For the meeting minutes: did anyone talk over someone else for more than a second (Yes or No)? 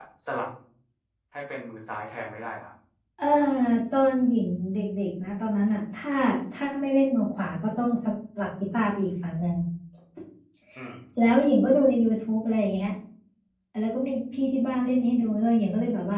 No